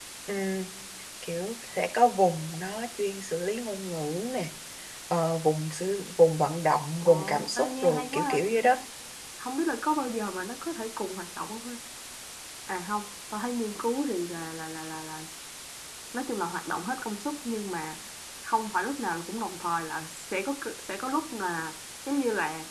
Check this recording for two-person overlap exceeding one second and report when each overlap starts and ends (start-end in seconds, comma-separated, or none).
7.0-8.4